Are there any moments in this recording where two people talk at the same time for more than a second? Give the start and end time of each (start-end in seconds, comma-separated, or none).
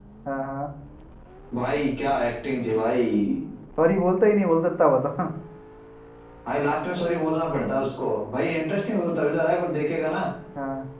none